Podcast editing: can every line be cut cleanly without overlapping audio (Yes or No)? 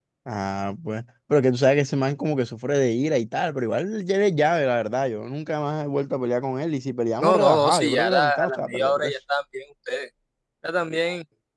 No